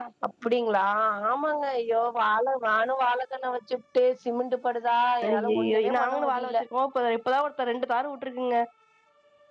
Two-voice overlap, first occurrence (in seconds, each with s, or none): 5.2 s